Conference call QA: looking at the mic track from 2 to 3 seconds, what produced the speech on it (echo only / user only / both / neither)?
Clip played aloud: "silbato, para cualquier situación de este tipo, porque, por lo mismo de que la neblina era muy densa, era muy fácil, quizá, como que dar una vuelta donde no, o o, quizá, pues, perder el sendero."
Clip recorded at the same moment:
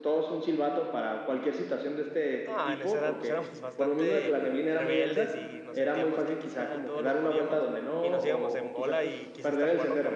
both